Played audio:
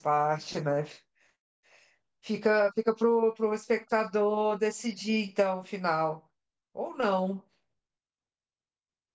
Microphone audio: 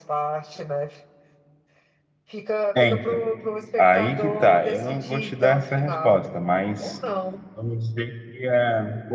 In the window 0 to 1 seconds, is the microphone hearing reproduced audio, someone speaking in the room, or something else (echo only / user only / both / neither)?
echo only